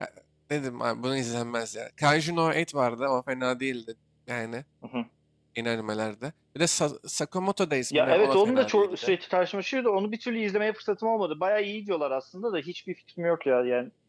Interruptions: present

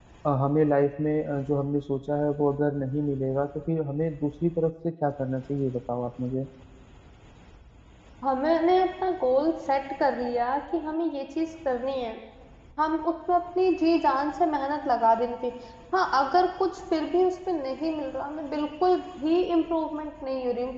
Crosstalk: none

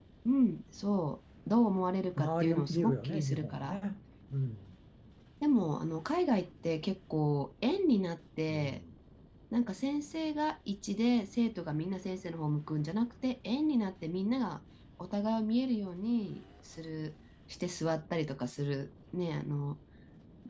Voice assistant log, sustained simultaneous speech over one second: present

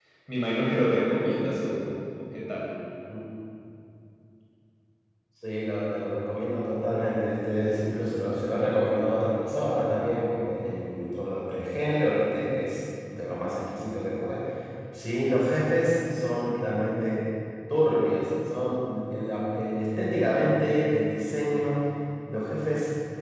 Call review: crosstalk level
none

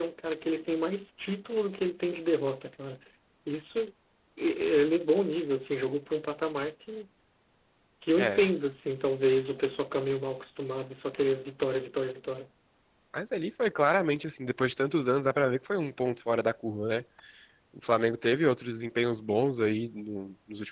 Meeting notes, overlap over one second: none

